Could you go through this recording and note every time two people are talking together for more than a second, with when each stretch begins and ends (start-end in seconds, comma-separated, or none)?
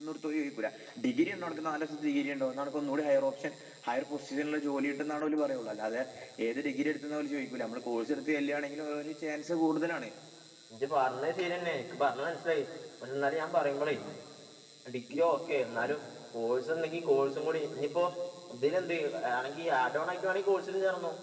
none